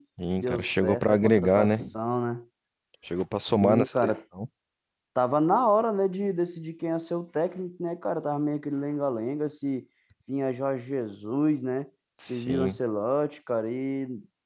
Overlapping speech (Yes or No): Yes